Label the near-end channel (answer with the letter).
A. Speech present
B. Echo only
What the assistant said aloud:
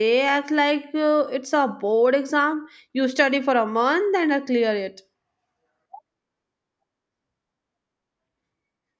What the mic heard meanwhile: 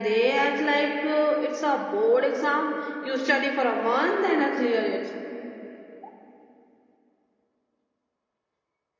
B